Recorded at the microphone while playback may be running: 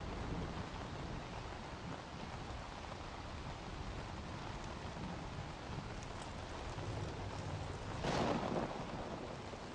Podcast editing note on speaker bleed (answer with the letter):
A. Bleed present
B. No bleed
B